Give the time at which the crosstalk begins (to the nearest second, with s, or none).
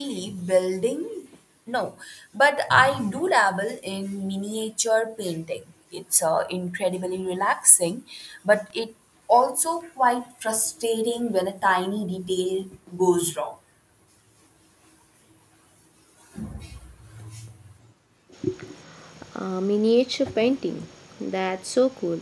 none